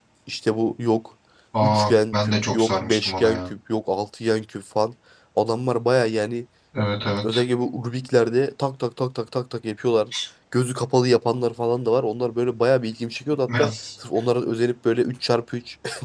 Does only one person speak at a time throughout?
No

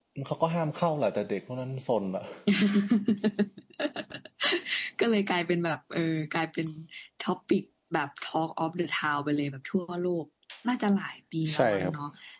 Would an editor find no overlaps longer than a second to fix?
Yes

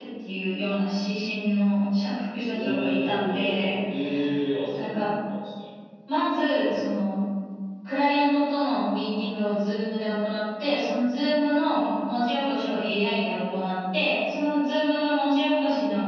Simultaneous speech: Yes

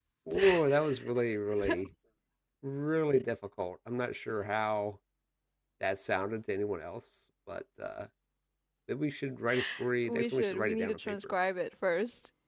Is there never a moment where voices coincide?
No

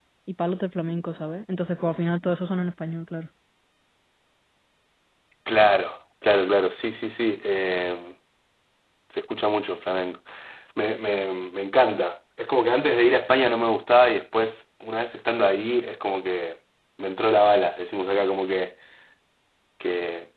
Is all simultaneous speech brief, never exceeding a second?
Yes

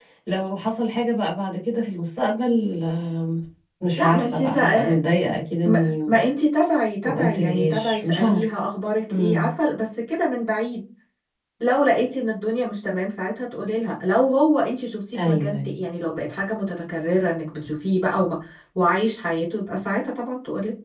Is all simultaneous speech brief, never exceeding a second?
No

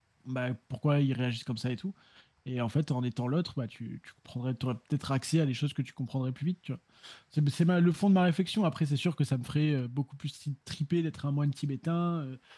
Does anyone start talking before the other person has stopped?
No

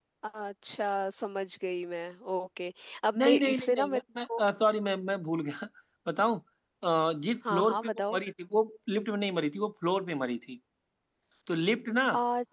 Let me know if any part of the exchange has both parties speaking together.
Yes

